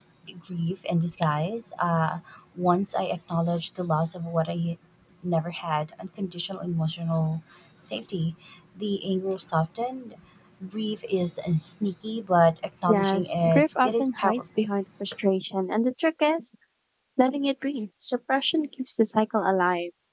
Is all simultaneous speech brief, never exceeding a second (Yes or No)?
No